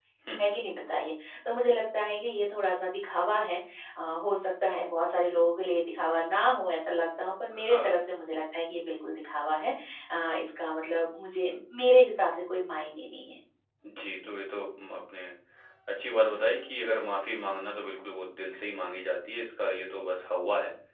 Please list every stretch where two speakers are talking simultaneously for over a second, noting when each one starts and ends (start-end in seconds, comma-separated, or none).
none